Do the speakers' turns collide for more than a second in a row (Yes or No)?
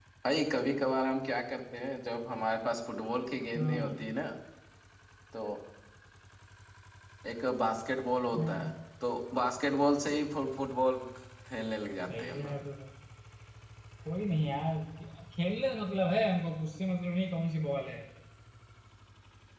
No